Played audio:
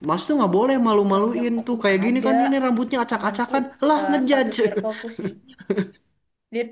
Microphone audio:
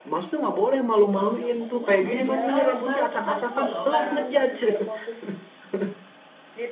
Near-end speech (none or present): present